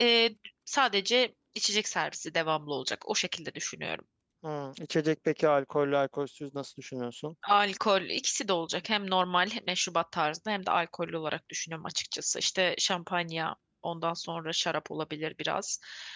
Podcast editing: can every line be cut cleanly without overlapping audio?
Yes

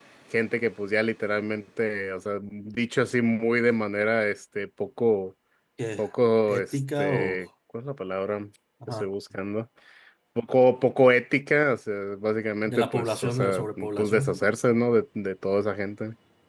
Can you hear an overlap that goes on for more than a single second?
Yes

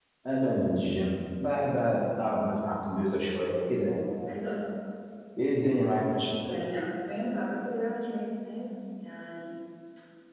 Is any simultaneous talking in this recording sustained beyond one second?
No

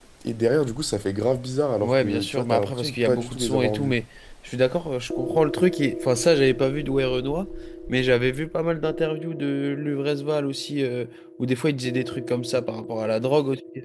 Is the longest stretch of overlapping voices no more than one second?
No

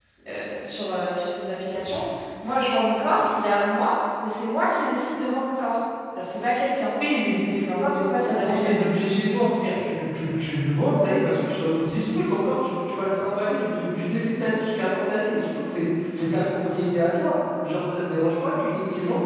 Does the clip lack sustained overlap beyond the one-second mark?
No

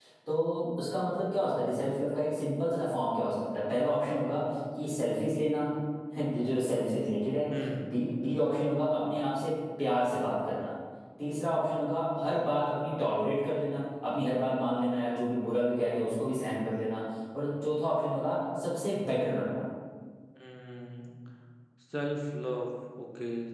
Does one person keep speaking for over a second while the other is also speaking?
No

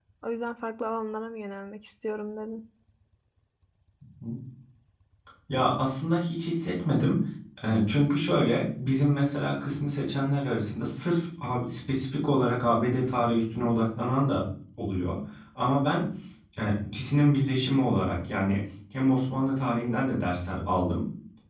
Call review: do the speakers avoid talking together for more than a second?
Yes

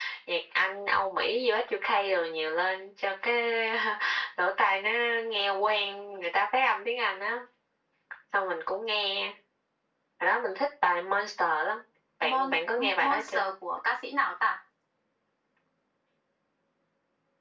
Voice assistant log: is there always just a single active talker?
No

